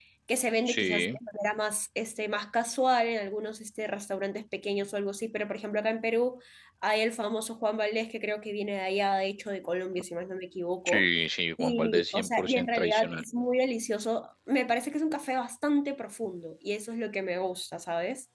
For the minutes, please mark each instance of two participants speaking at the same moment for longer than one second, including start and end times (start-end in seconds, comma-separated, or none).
11.6-13.2